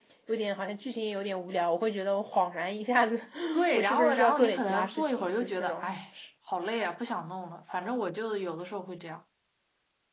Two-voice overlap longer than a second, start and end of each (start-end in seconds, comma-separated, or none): 3.7-5.9